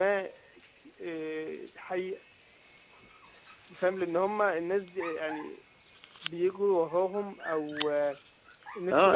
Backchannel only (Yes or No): No